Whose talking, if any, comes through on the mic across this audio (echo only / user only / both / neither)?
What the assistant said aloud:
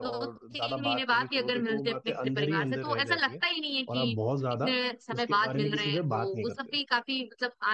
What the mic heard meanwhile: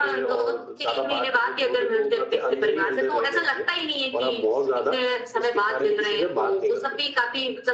echo only